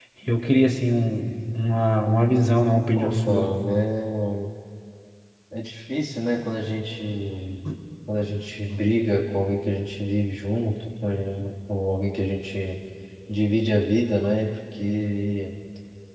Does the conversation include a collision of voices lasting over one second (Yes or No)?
No